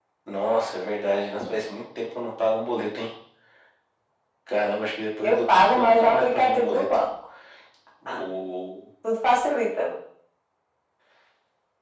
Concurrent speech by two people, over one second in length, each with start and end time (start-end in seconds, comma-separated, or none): 5.2-6.8